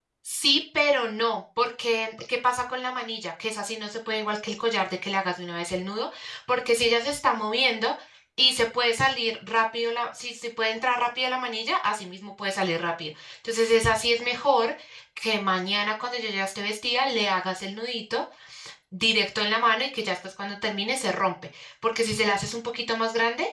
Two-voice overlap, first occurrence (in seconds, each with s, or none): none